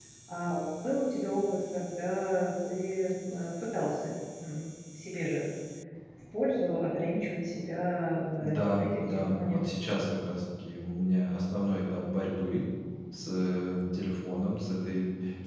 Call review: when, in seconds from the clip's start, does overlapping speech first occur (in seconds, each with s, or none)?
8.4 s